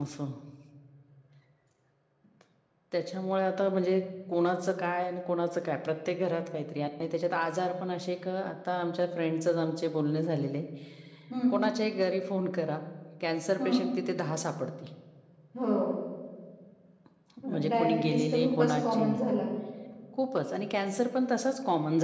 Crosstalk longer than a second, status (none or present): present